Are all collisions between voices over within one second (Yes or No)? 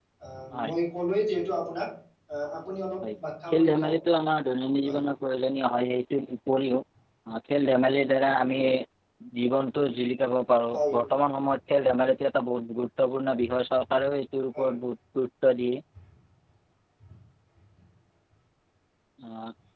Yes